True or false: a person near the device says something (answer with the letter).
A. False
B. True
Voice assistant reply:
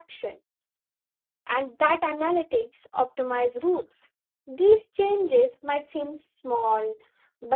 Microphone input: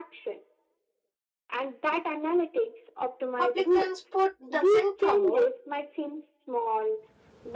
B